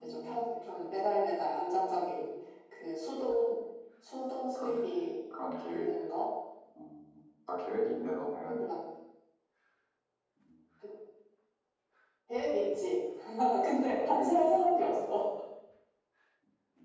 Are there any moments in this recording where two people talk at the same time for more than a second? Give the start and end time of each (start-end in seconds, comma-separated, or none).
13.6-15.1